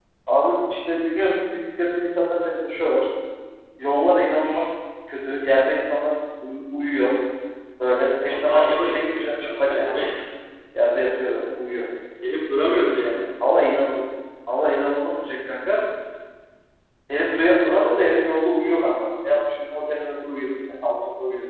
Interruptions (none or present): present